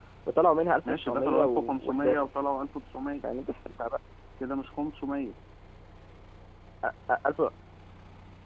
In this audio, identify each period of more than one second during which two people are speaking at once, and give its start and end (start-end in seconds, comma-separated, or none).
1.1-2.3